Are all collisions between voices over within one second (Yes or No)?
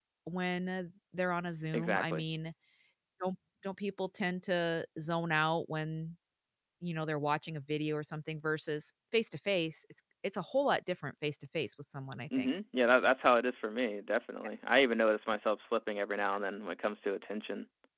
Yes